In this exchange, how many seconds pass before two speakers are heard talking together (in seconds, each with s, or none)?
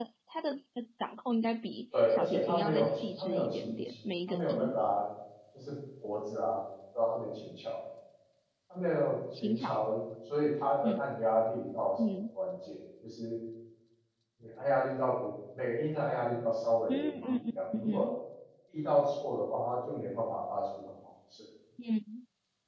2.1 s